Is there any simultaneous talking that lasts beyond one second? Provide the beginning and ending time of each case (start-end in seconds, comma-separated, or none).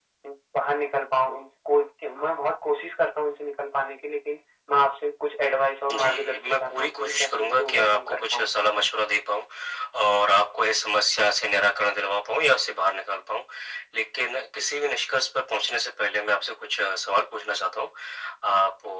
5.9-8.5